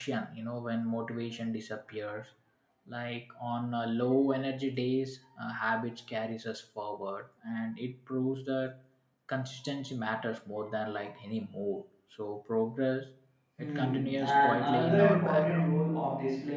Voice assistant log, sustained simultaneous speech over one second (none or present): present